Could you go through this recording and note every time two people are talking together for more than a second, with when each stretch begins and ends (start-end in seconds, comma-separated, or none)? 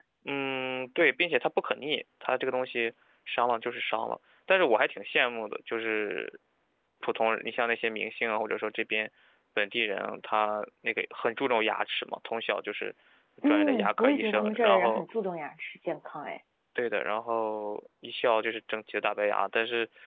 13.4-15.0